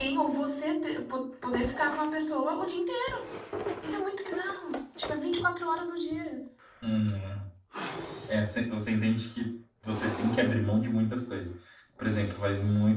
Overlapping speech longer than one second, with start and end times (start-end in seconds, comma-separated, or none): none